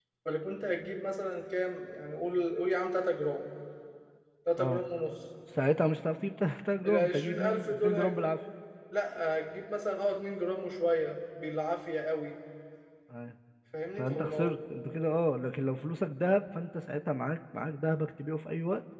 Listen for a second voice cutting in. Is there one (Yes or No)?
Yes